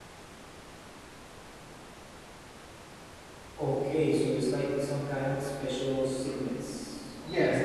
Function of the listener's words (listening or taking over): taking over